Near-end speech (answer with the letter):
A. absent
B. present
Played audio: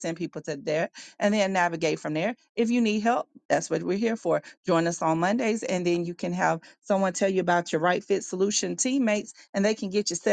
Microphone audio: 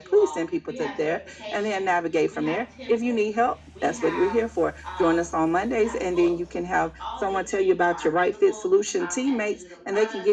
B